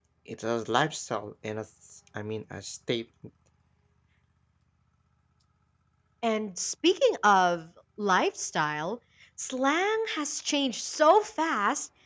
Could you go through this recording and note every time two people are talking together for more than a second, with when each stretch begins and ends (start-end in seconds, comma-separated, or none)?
none